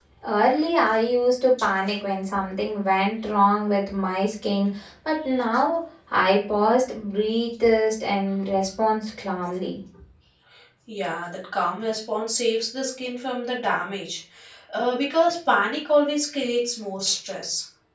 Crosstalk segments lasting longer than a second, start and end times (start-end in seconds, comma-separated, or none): none